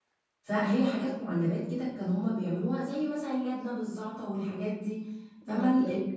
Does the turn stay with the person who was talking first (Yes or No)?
Yes